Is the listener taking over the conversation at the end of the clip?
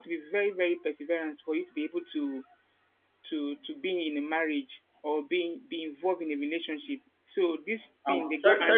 Yes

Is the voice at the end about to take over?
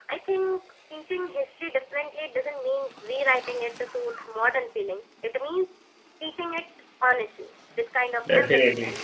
No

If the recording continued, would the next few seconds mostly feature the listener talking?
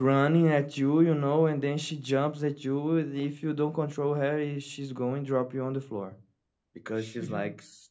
No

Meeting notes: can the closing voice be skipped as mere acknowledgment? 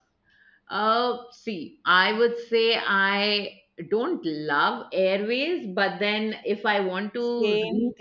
Yes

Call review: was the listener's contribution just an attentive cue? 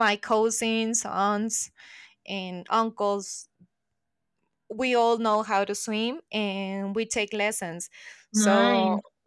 Yes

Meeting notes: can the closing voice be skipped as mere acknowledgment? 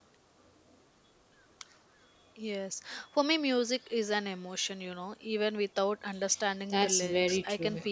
No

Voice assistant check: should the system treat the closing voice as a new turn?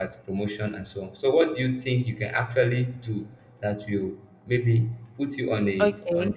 Yes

